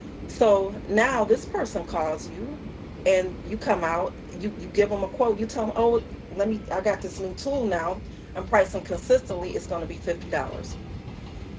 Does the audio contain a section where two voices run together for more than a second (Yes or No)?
No